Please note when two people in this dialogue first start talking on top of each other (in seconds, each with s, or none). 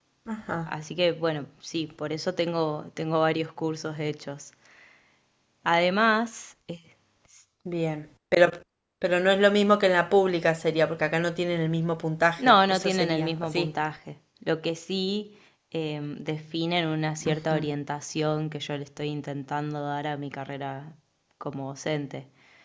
12.4 s